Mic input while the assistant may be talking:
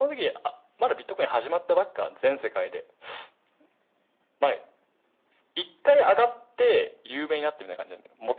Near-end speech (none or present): none